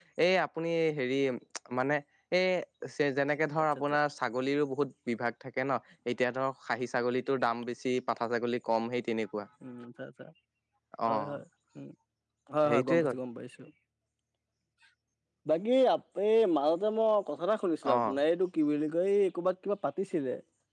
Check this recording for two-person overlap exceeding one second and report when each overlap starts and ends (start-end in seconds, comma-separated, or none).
none